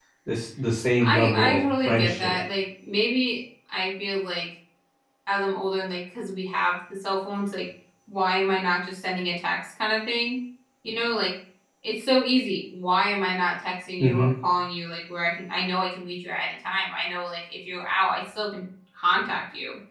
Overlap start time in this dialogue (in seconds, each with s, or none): 1.0 s